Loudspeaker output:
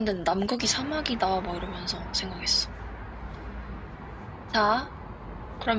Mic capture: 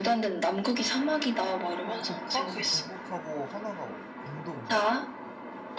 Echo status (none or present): present